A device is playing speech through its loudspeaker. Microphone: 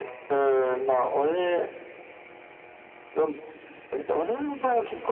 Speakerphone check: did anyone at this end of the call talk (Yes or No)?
No